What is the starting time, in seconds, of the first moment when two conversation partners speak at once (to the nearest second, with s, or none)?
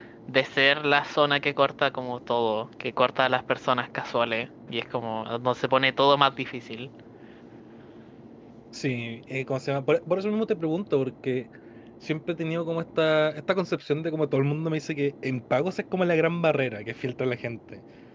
none